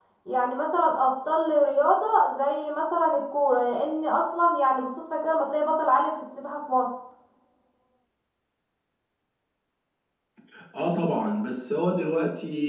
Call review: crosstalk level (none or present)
none